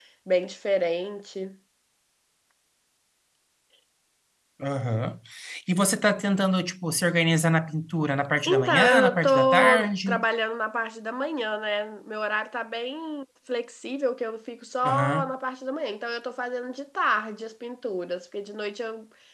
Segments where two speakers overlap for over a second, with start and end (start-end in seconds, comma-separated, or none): 8.4-10.2